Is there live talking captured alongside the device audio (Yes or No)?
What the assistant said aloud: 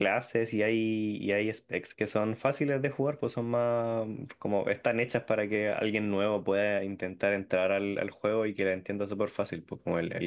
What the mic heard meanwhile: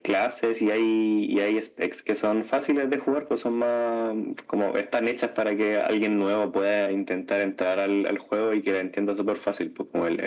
No